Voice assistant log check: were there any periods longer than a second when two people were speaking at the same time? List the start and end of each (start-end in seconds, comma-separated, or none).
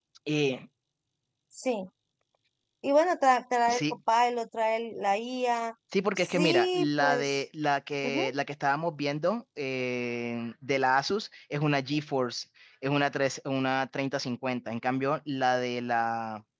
6.2-7.4